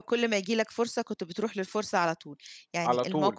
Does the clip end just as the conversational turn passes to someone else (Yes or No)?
No